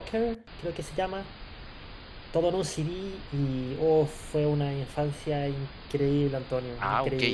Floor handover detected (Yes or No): Yes